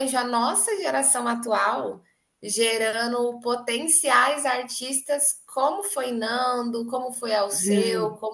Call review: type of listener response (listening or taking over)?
listening